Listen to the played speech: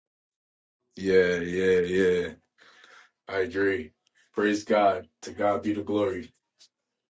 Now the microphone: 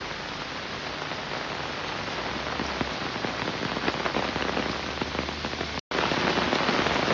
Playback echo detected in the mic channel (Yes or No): No